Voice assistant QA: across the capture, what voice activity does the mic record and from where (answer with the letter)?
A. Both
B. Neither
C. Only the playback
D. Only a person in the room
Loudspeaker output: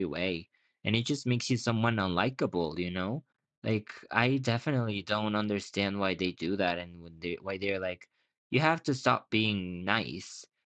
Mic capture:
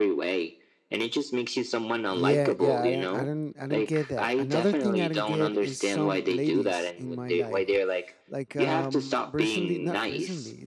A